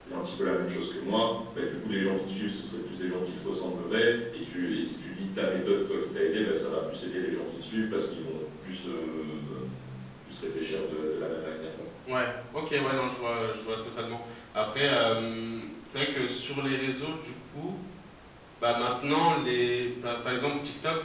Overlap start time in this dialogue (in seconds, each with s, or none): none